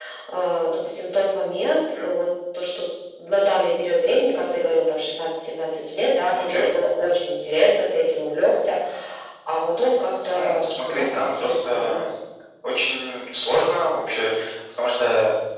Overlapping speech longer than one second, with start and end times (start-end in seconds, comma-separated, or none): 10.2-12.1